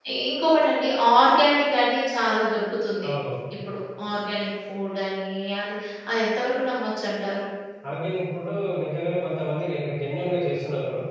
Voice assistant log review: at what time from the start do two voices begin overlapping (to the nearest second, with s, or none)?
none